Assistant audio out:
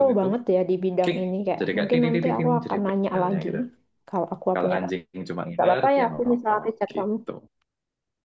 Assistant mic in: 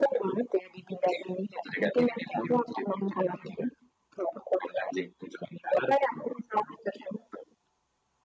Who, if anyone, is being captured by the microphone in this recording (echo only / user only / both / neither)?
echo only